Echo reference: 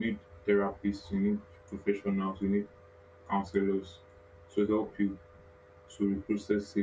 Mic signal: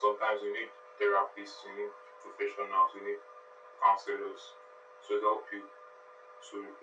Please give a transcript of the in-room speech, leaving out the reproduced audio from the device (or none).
none